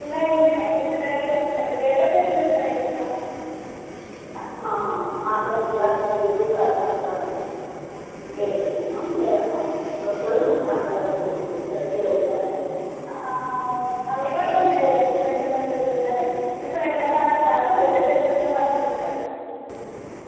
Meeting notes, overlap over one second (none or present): none